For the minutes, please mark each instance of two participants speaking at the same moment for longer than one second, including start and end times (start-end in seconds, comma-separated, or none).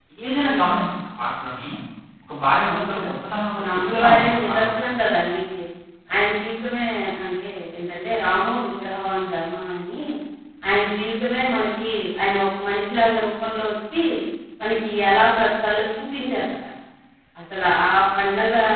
3.6-4.8